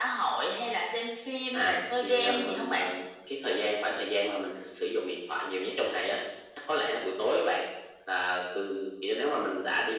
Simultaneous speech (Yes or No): Yes